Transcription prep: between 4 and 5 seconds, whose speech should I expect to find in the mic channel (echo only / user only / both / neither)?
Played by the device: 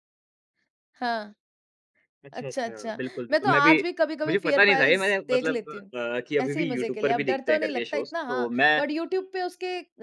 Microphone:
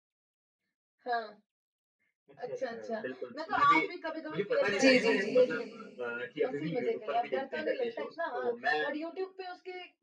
both